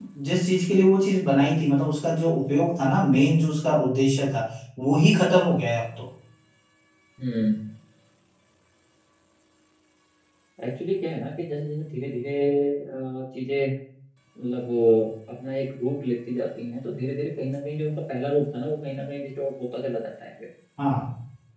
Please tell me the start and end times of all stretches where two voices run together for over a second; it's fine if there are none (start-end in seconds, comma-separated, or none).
none